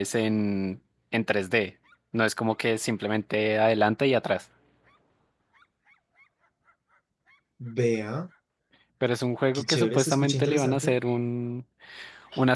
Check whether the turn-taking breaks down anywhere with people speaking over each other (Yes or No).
Yes